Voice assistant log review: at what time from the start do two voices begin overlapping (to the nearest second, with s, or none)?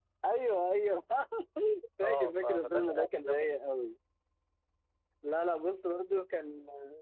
2 s